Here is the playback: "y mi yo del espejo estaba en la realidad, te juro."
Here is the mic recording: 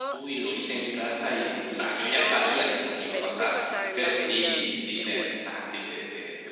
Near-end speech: present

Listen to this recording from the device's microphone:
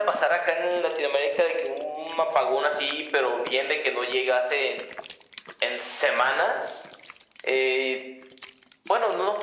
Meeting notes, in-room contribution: none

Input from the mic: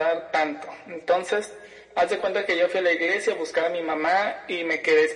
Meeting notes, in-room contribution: none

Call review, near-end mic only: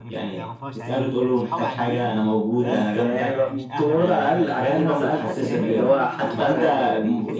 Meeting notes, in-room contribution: present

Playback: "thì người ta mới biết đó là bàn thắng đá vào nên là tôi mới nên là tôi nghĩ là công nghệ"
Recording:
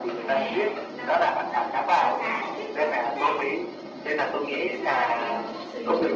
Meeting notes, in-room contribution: present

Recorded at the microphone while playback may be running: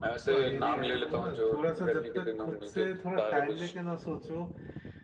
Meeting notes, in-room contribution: present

